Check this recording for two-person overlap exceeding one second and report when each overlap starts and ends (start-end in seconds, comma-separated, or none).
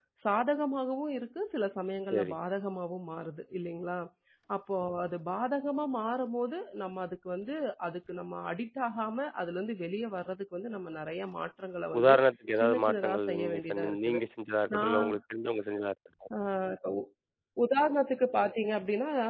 12.6-14.2